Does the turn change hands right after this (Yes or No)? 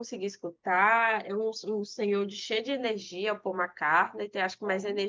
No